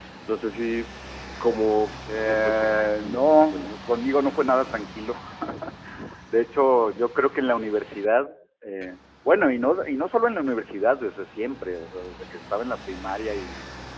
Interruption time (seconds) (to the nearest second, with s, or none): 2 s